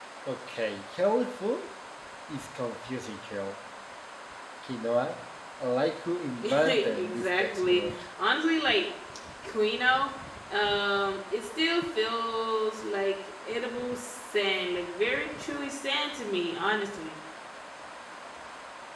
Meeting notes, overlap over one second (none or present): present